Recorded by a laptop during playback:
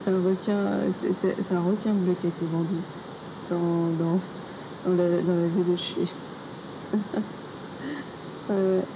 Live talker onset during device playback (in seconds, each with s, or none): none